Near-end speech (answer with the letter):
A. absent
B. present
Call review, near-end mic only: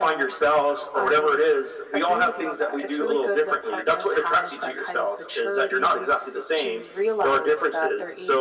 A